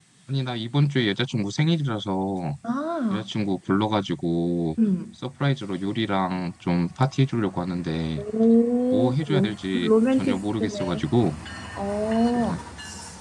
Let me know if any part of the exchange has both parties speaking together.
Yes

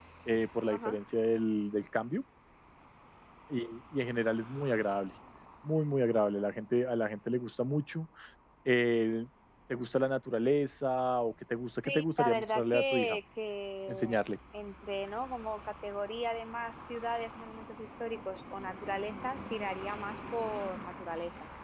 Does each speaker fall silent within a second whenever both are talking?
No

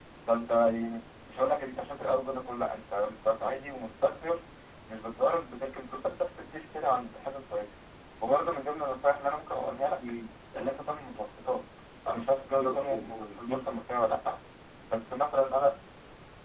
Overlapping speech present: Yes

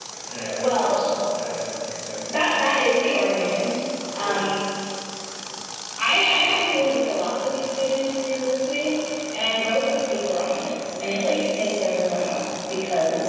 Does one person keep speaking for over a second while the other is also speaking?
No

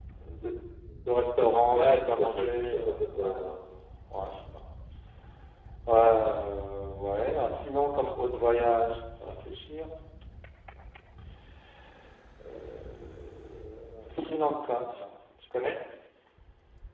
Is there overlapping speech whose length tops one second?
Yes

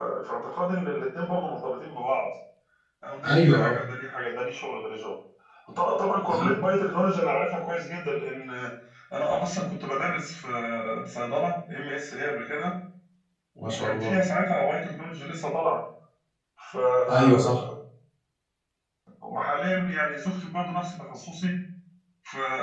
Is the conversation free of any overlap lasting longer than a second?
Yes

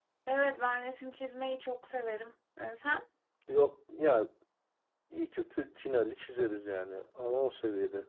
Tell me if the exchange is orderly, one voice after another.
Yes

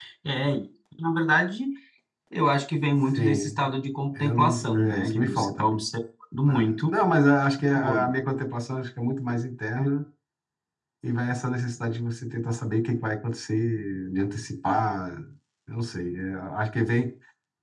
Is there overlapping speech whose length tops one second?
Yes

